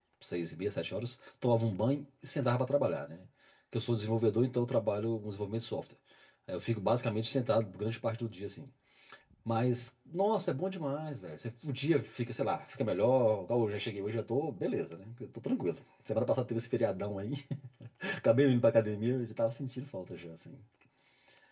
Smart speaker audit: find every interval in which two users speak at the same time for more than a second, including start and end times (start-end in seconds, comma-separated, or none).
none